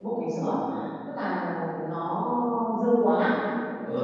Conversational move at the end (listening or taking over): taking over